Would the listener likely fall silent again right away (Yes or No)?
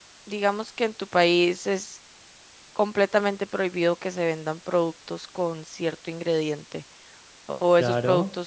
Yes